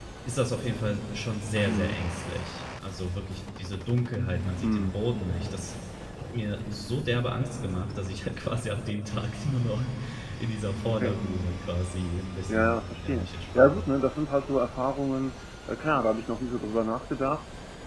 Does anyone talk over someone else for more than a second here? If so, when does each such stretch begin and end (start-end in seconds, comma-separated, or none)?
12.5-13.9